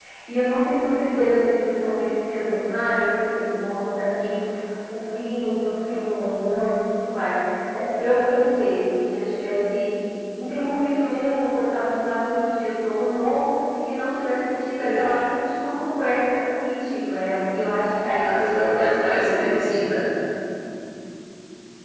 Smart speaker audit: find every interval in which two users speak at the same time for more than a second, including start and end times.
18.2-19.8

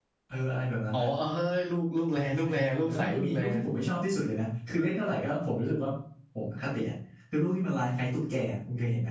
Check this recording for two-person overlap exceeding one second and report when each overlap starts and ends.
2.1-3.4

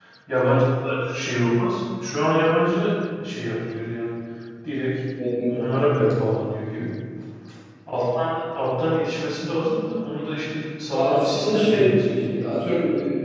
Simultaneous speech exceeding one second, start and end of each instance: 10.9-12.3

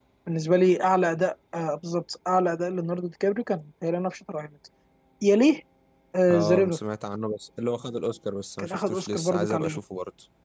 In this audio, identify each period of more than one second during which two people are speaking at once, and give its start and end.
8.6-9.8

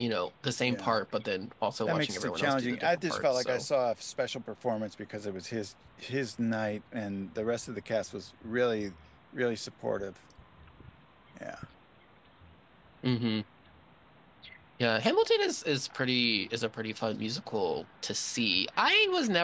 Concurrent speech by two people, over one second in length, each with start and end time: 1.8-3.7

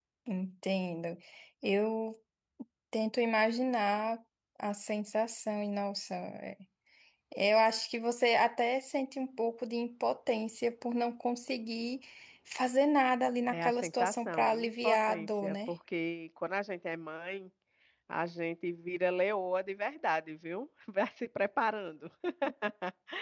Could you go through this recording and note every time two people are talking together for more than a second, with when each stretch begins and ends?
13.5-15.7

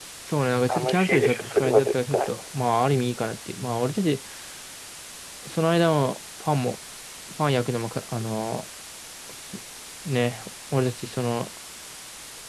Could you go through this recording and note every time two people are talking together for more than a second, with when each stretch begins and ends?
0.7-2.3

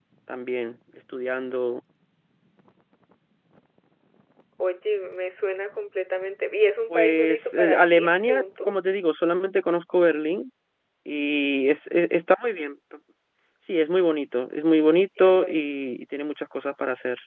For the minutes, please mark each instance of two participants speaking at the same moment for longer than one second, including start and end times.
6.9-8.7

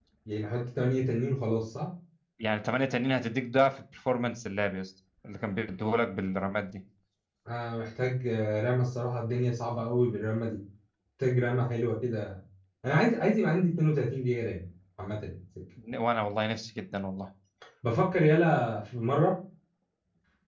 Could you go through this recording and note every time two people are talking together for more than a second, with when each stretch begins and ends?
none

